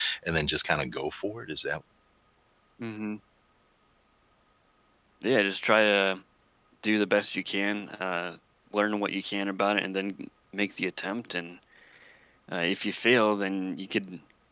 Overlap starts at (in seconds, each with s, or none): none